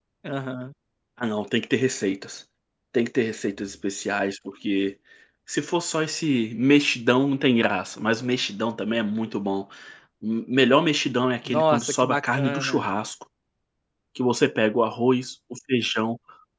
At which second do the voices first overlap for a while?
11.4 s

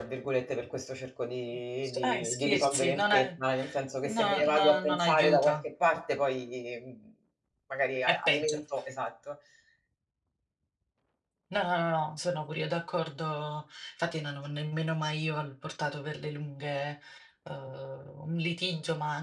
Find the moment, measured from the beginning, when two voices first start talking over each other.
1.8 s

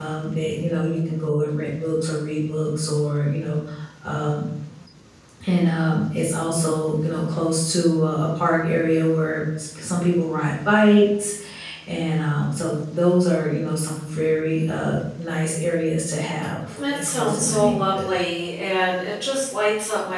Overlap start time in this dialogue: 16.9 s

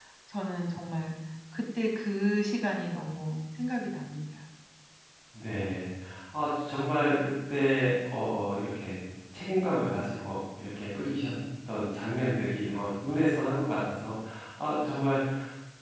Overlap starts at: none

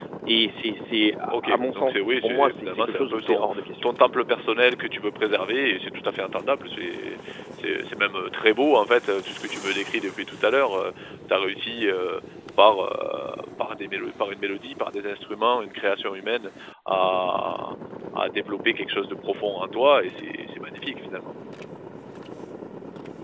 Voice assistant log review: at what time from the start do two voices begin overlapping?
1.3 s

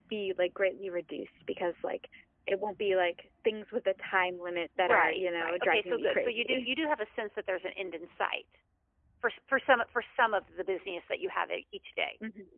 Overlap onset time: 4.8 s

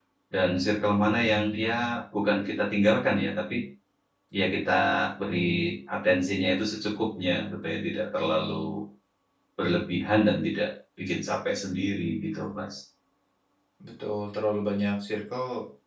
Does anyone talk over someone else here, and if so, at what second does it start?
none

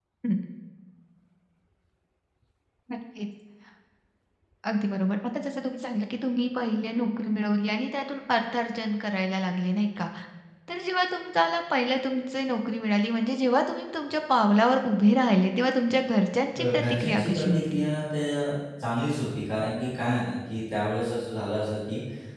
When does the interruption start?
16.6 s

